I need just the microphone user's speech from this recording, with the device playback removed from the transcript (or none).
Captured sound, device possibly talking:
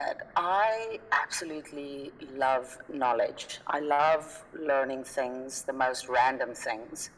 none